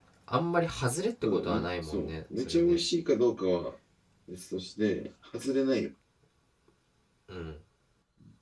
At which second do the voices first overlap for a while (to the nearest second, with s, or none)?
1 s